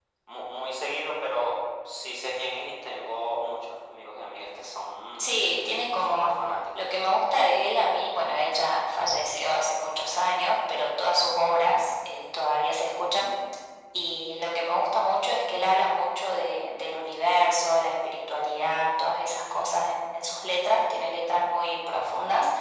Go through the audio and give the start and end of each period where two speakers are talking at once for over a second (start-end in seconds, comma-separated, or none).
none